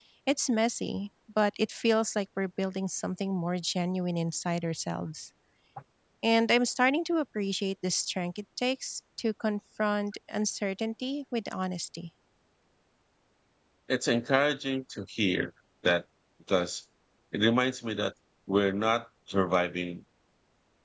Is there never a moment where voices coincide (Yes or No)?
Yes